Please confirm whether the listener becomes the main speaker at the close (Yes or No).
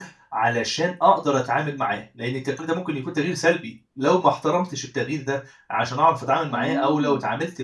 No